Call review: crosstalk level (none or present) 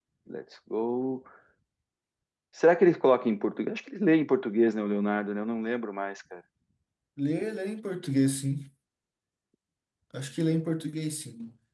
none